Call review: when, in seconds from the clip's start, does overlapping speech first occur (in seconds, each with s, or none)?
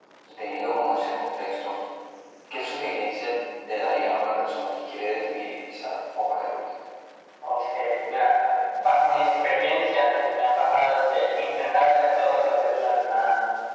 none